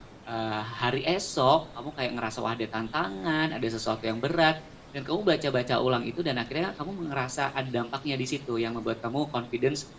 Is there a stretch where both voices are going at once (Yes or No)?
No